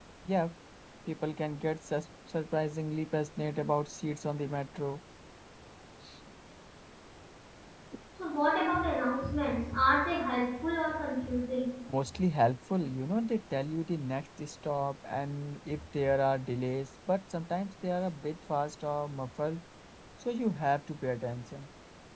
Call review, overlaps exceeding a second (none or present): none